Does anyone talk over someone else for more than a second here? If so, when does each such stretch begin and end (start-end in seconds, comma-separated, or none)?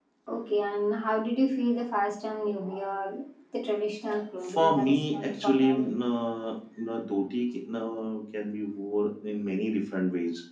4.4-6.0